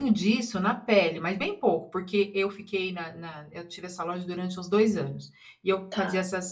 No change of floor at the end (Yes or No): Yes